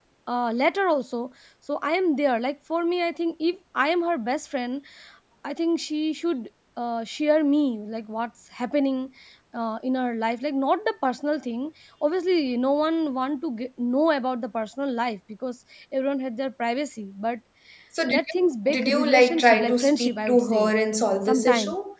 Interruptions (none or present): present